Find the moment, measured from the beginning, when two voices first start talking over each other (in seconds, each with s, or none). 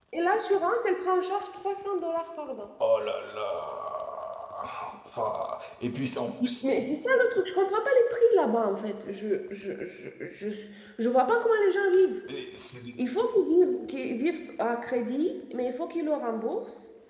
none